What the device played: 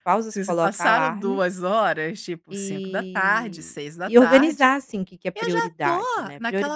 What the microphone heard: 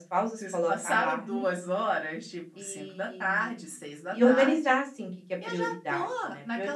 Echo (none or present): present